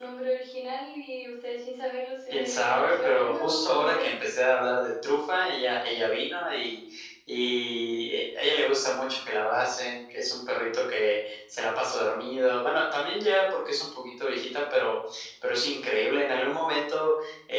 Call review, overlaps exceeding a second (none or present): present